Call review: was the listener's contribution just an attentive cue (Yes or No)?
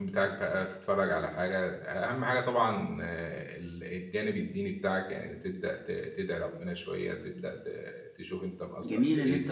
No